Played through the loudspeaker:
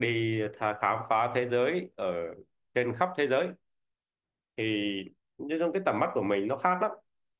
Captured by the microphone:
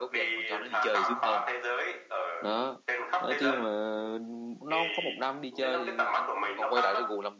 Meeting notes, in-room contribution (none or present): present